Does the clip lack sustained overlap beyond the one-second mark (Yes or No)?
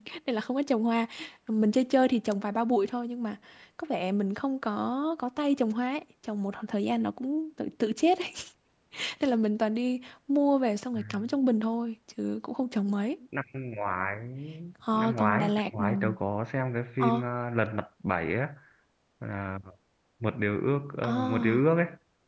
No